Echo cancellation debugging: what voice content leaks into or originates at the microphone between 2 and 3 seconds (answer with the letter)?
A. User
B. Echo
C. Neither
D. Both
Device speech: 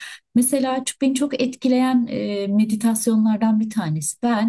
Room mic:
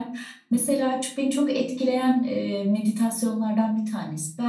B